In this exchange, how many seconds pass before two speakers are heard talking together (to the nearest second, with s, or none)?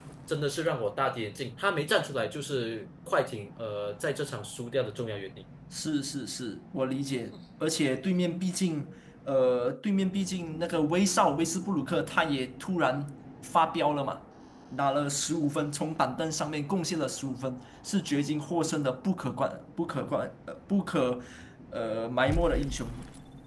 none